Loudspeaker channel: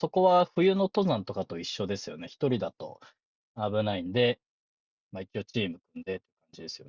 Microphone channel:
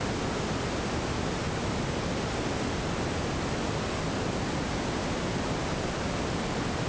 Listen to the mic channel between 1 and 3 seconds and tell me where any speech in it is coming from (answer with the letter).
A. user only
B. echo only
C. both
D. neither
D